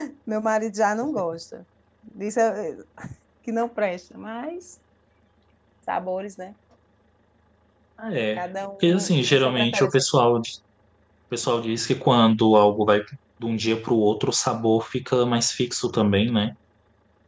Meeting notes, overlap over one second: present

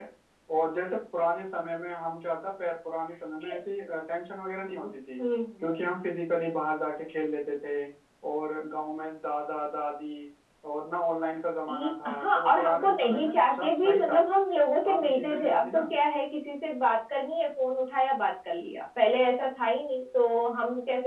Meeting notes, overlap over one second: present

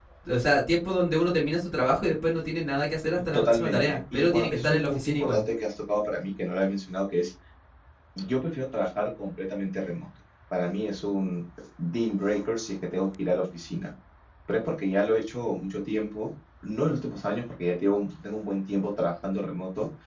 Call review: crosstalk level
present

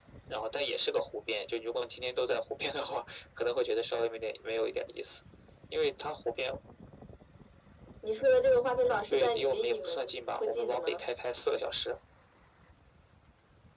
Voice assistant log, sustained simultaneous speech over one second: present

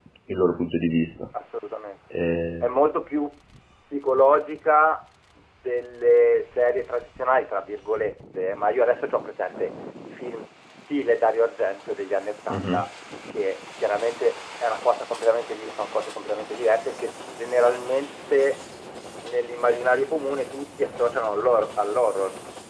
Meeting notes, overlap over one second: none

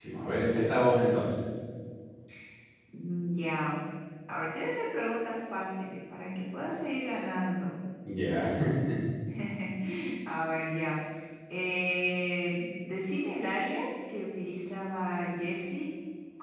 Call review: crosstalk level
none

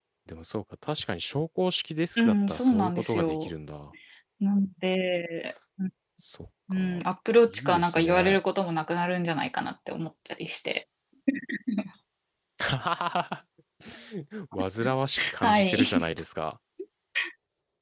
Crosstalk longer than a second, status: present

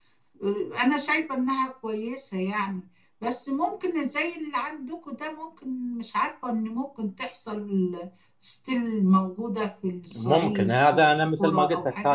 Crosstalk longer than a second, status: present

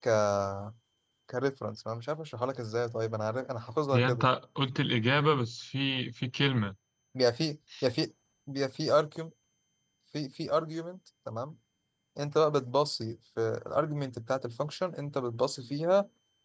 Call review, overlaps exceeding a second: none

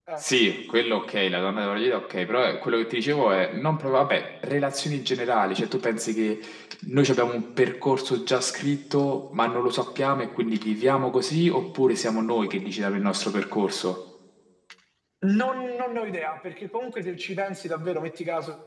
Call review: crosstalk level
none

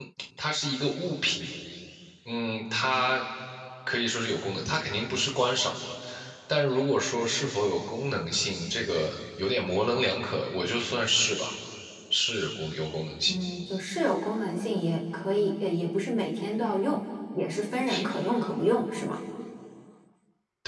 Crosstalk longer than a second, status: none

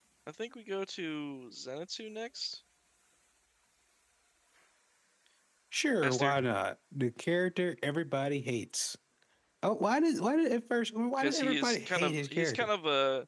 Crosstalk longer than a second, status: present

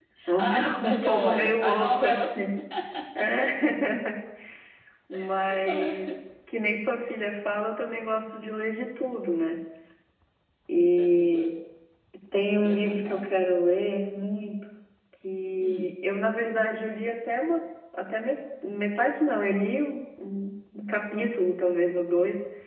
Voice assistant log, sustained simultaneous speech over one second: present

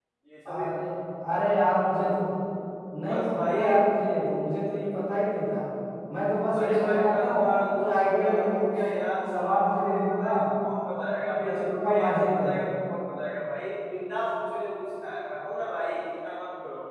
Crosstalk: present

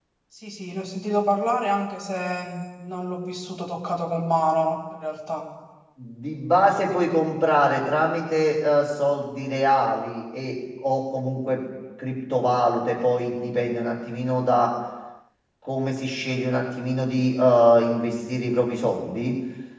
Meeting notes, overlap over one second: none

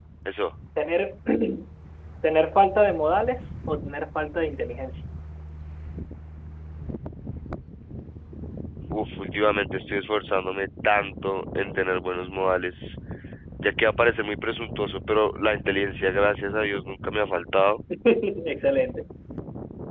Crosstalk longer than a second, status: none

